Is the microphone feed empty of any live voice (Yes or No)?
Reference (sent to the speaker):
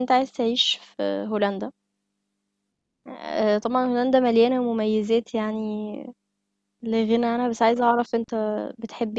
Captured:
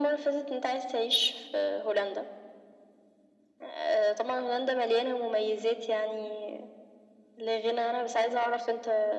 Yes